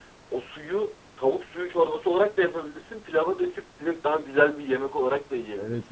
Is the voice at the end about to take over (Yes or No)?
Yes